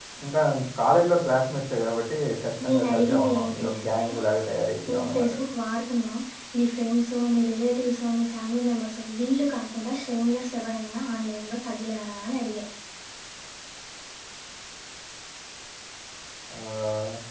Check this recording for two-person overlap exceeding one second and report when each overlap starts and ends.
2.6-4.1

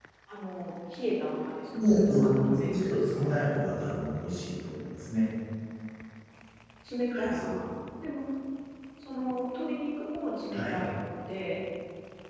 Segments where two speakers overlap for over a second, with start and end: 1.7-3.2

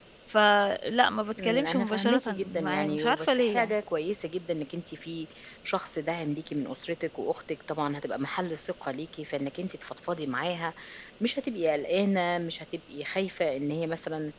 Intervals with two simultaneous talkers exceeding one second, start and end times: 1.4-3.8

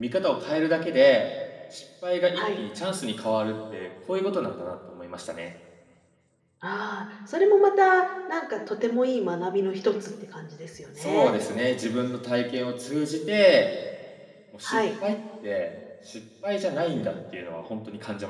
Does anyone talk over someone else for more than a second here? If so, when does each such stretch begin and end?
none

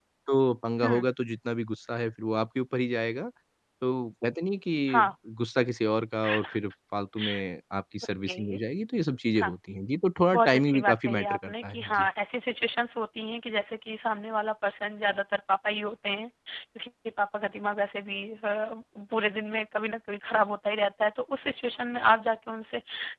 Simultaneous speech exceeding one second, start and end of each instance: 10.3-12.1

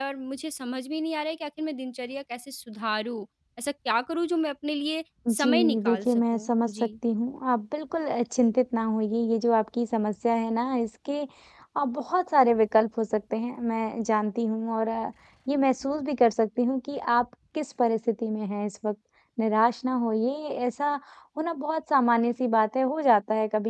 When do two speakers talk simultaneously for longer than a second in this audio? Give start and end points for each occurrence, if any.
5.3-6.9

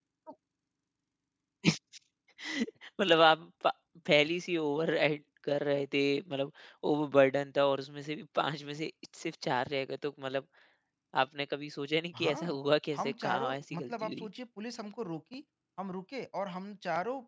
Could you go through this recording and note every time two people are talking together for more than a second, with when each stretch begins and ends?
13.0-14.3

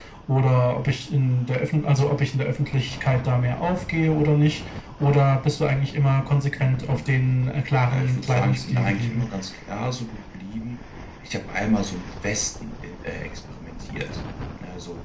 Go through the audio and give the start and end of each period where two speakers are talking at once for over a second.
7.9-9.3

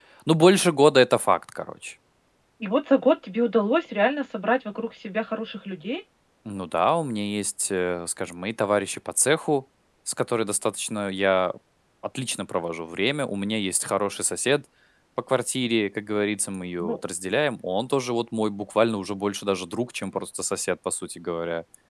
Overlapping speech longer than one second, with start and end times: none

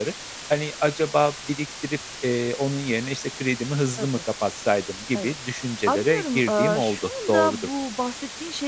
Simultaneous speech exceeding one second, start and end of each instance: 5.9-7.7

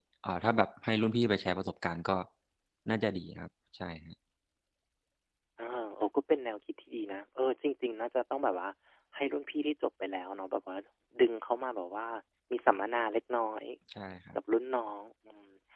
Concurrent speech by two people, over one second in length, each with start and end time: none

